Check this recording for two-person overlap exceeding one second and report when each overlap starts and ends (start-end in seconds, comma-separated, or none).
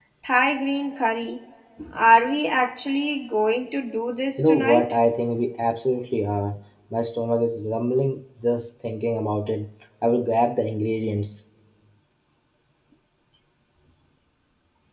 none